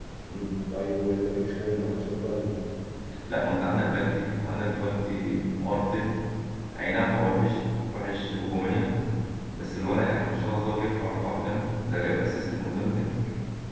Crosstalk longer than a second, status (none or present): none